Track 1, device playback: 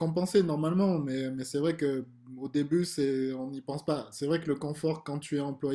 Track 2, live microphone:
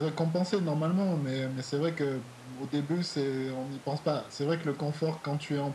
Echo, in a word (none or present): present